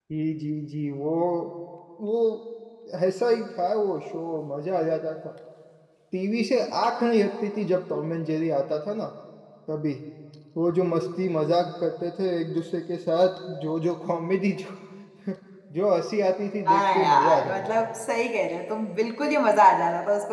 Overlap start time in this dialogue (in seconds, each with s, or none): 16.7 s